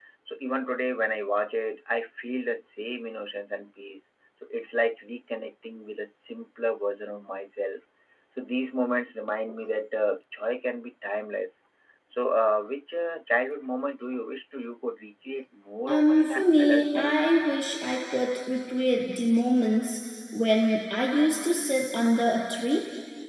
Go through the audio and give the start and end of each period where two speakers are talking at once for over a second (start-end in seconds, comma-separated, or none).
15.9-17.1